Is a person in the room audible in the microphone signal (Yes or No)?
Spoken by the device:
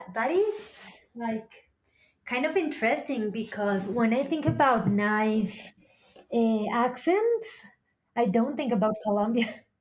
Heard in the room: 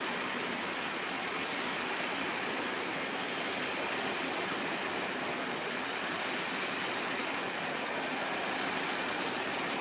No